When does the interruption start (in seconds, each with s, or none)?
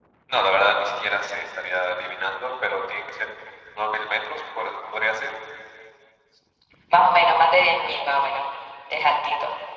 none